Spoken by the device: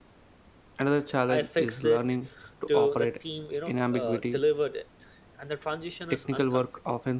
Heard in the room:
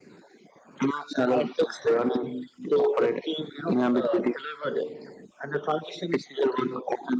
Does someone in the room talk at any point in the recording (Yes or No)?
No